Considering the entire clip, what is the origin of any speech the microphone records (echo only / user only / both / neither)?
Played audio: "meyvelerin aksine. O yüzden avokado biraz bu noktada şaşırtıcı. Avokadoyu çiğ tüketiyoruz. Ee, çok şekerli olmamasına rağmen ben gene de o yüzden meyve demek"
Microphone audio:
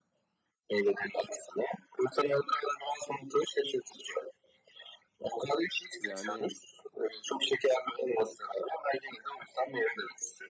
both